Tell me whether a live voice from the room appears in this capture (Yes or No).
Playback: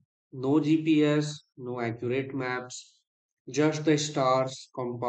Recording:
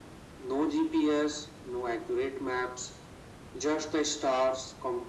No